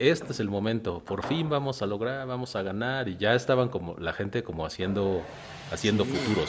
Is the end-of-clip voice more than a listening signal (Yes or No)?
Yes